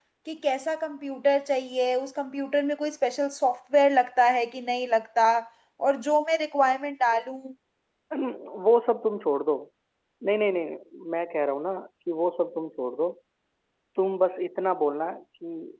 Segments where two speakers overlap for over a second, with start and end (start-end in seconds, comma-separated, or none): none